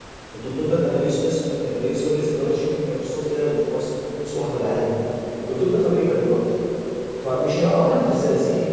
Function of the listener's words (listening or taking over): listening